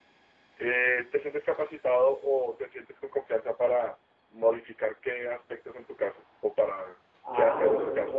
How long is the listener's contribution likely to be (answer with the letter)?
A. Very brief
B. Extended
B